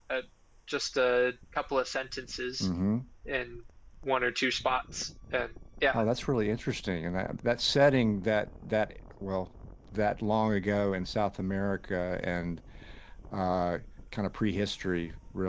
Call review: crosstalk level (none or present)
none